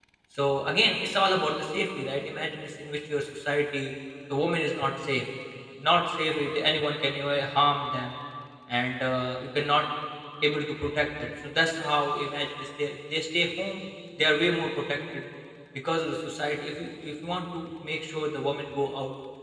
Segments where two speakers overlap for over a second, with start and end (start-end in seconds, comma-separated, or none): none